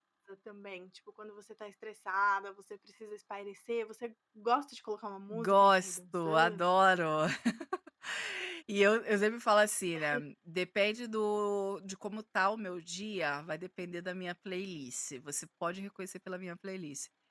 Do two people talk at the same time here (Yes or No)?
Yes